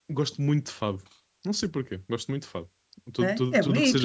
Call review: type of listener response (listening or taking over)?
taking over